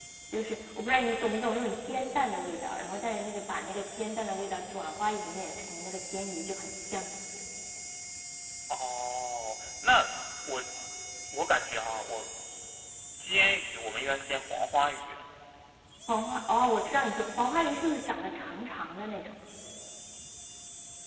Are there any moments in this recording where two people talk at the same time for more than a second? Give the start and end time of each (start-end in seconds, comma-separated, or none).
none